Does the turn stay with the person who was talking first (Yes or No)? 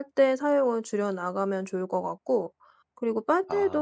Yes